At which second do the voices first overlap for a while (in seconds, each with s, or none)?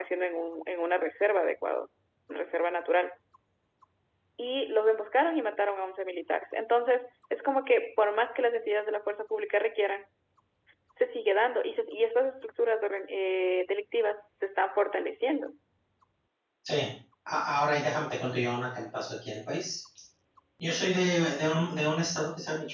none